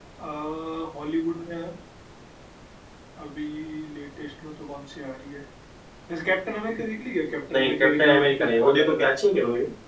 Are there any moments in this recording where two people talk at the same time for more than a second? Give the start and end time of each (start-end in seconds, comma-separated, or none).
7.5-9.1